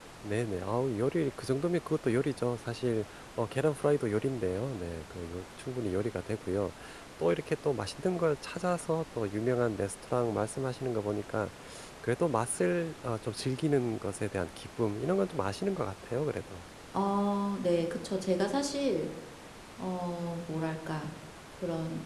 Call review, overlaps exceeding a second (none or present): none